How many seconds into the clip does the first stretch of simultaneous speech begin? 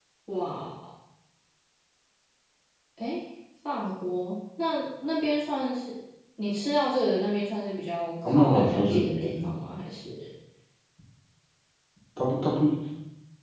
8 s

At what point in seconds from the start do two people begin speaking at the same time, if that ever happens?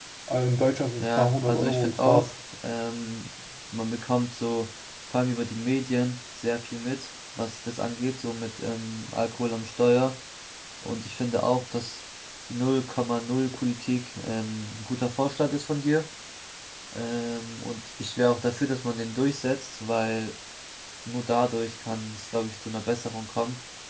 1 s

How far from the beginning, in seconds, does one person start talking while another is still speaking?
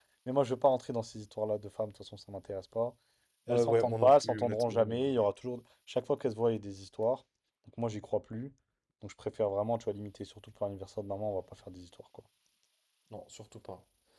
3 s

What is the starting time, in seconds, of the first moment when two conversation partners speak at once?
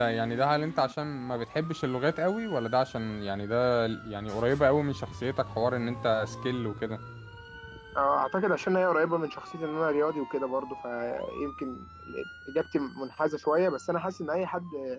none

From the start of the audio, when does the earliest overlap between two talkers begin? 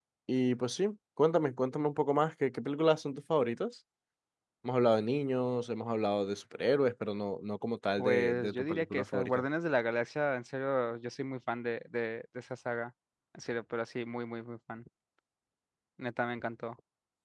8 s

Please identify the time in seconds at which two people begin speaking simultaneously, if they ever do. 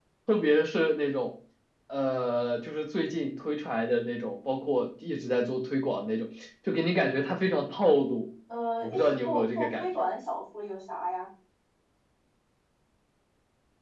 9 s

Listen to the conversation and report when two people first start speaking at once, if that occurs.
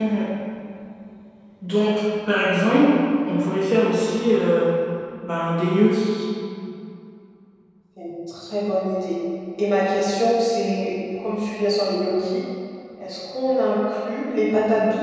none

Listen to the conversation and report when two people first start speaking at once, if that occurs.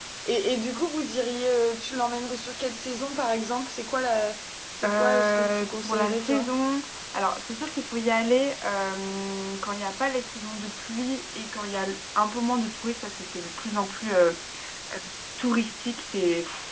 5 s

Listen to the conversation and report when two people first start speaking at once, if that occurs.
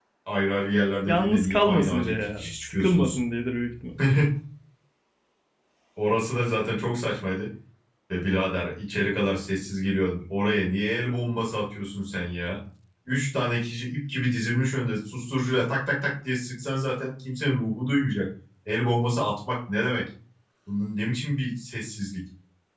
1 s

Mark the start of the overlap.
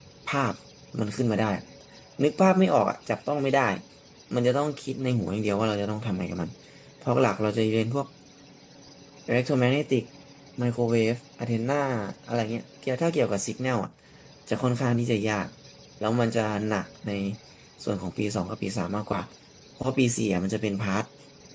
none

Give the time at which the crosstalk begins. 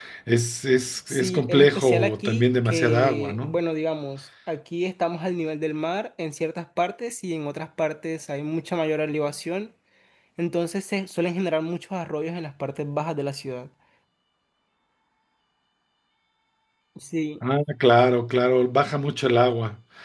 1 s

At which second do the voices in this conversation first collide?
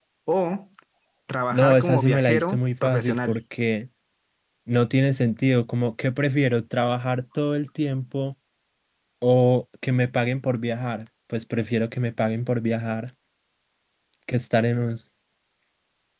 2 s

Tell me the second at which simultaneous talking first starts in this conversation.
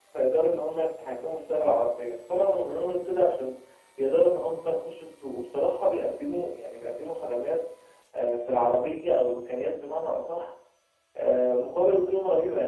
none

